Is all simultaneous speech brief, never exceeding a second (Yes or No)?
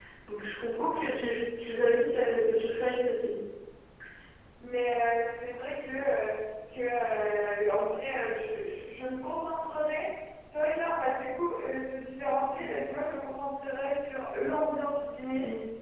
Yes